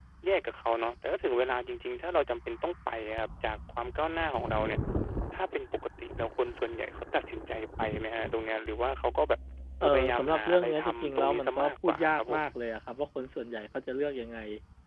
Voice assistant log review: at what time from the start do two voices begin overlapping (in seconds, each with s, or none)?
9.8 s